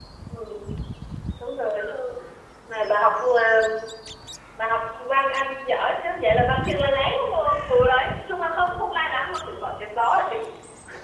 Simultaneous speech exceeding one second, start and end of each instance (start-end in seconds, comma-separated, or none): none